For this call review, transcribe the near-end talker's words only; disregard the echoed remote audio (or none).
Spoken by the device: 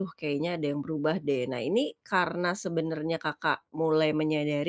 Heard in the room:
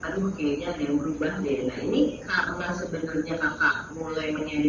none